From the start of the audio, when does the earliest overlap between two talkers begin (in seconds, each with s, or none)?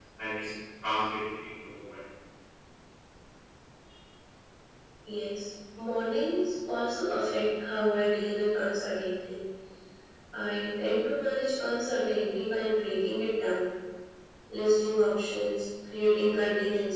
none